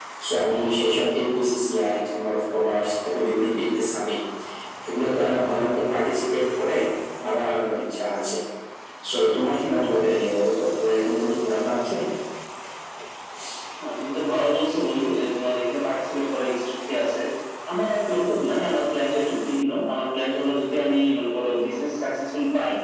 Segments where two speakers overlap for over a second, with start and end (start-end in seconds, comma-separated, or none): none